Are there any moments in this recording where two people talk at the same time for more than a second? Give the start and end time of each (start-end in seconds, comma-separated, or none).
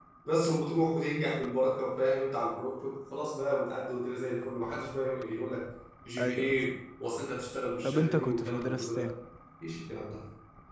7.8-9.1